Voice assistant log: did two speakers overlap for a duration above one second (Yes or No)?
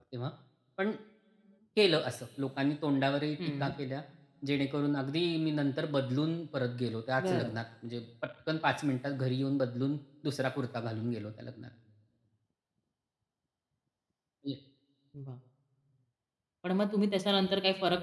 No